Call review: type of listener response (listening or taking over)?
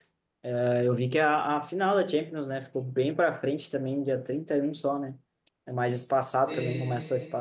listening